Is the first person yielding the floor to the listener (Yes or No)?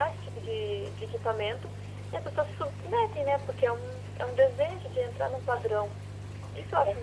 Yes